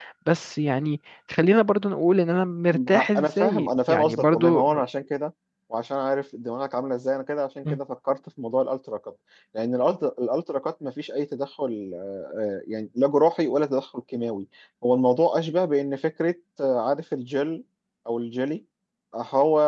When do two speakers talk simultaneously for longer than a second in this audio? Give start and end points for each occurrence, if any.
2.7-4.6

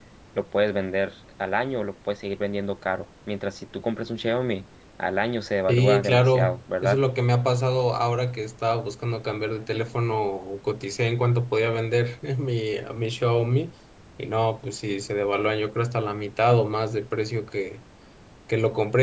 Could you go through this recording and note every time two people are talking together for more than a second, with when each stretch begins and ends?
5.7-7.0

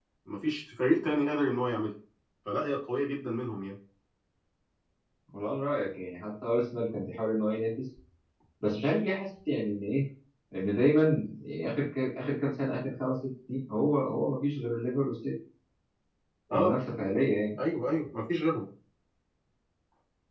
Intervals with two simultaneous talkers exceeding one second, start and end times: none

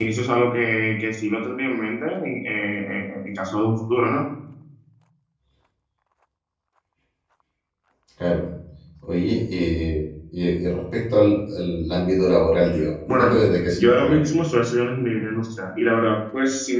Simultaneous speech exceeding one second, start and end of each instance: none

